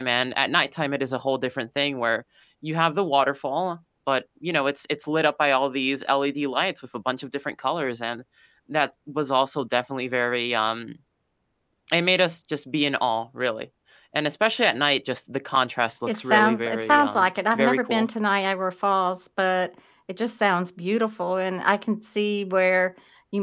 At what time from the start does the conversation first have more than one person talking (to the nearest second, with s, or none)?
16 s